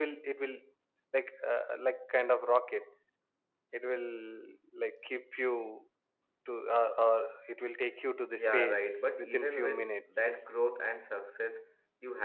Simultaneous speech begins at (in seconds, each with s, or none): 8.4 s